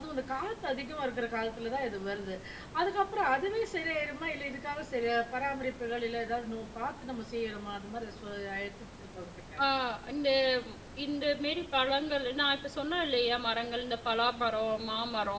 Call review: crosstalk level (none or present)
none